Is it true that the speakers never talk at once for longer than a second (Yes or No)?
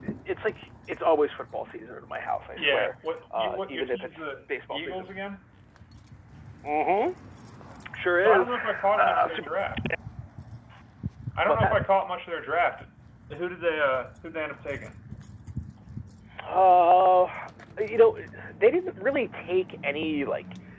No